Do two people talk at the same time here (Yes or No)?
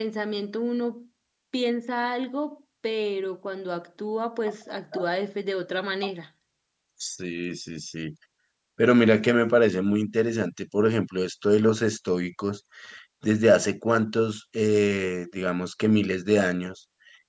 No